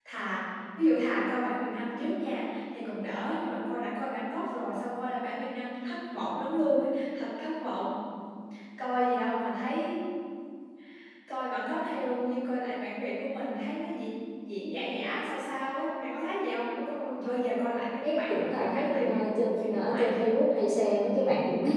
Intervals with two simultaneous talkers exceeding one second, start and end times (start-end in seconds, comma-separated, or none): 18.0-20.2